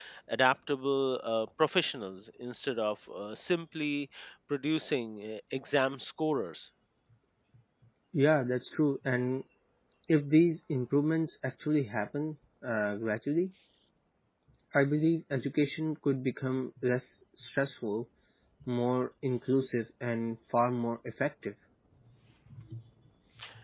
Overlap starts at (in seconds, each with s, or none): none